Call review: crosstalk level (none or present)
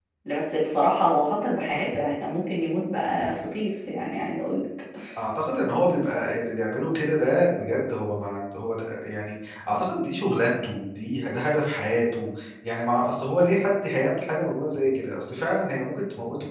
none